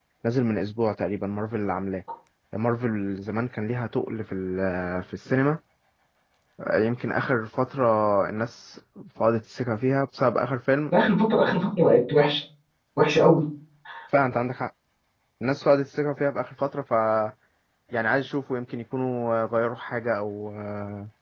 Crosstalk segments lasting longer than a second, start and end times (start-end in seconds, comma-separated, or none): none